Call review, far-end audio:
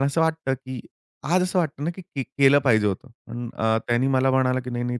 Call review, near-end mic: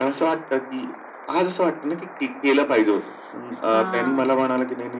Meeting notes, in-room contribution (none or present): present